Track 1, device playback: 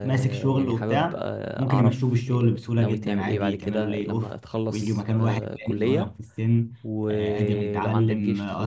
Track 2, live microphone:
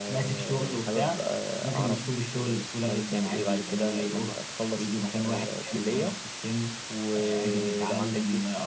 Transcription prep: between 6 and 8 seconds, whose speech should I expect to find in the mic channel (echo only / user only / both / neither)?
echo only